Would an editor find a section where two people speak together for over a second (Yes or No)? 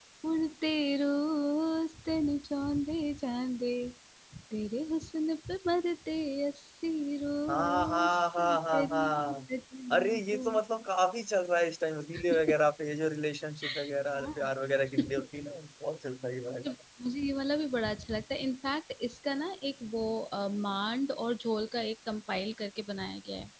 Yes